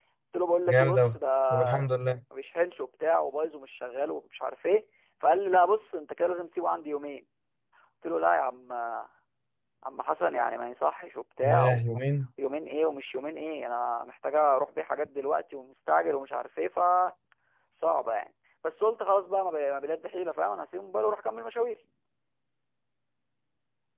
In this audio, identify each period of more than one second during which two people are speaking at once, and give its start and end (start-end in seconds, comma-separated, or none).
none